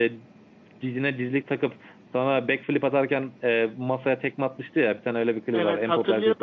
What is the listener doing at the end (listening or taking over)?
taking over